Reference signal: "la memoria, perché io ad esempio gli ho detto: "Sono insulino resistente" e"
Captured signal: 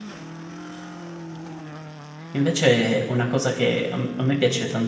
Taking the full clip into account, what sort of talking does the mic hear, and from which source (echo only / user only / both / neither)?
user only